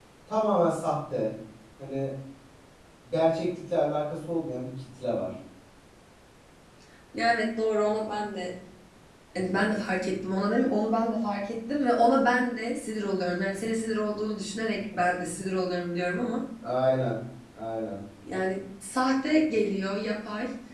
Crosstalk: none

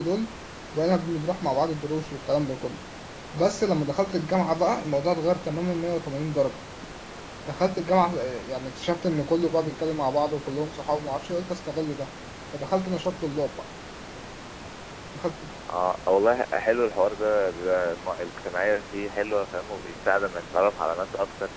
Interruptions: none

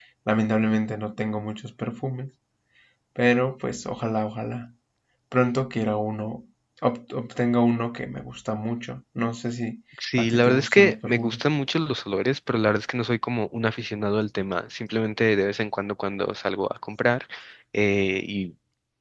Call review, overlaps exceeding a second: present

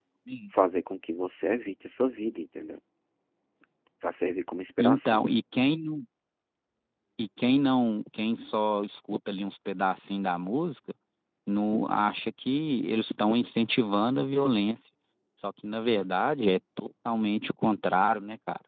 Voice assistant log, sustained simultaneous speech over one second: none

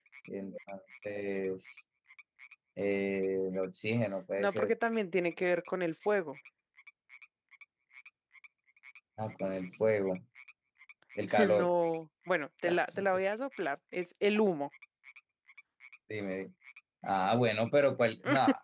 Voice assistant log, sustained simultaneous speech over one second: none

